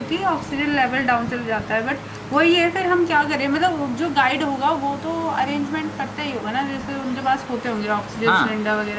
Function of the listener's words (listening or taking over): taking over